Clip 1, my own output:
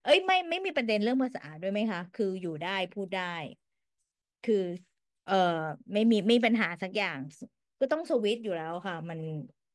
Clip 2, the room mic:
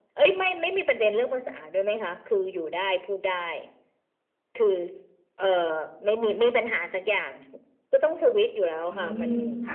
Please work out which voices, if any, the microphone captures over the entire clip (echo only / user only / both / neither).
both